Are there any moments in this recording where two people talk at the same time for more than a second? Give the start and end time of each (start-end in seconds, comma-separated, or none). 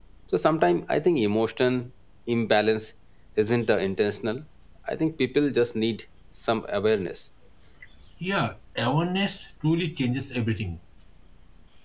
none